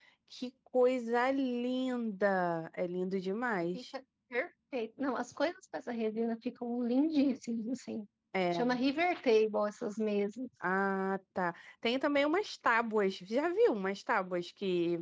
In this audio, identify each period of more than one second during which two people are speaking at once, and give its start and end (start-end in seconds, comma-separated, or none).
none